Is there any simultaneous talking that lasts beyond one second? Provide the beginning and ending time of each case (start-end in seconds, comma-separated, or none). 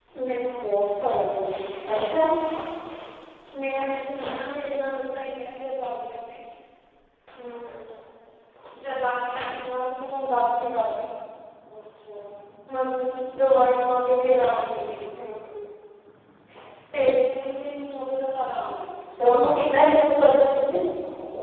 none